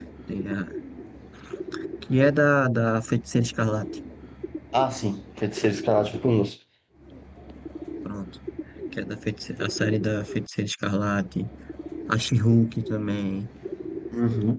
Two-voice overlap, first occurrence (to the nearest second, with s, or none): none